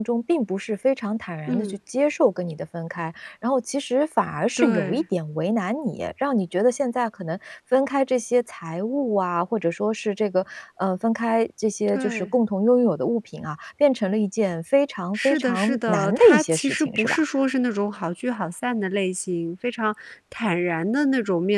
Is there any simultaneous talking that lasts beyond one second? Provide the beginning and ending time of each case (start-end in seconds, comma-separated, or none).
15.2-17.2